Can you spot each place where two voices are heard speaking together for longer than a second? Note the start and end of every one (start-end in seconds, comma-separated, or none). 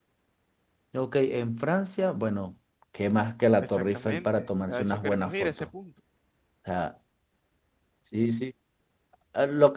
3.6-5.7